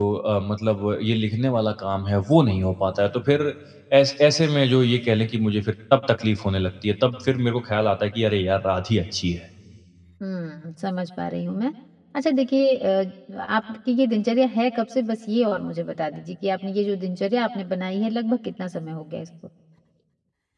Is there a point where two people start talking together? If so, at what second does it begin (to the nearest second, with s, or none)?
none